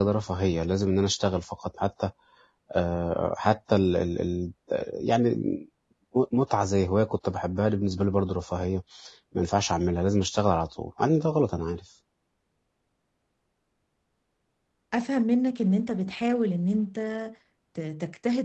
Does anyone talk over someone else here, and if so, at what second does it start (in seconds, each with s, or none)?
none